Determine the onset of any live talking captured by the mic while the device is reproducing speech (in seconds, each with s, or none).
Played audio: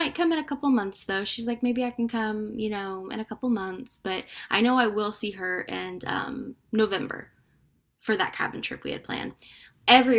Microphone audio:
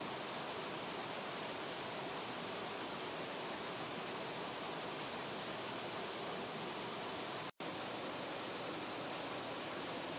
none